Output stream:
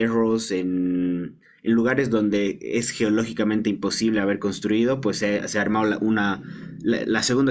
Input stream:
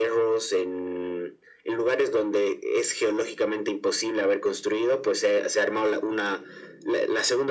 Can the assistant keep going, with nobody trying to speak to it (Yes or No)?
Yes